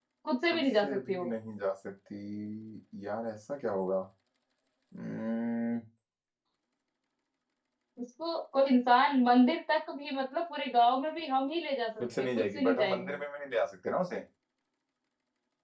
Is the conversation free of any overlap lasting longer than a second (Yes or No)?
No